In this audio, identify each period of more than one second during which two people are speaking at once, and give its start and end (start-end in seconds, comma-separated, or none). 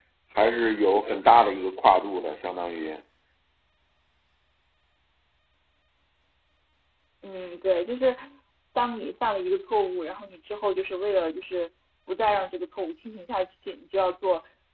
none